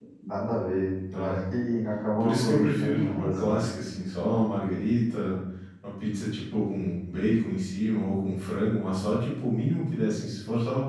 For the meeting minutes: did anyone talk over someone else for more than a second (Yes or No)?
Yes